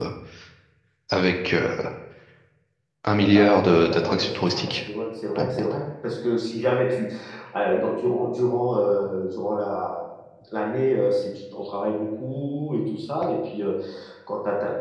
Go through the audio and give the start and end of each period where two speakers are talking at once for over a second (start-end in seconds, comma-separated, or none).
3.2-4.8